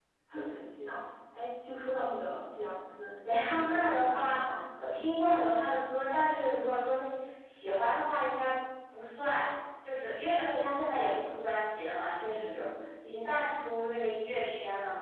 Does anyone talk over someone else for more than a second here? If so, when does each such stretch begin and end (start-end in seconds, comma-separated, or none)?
3.3-4.6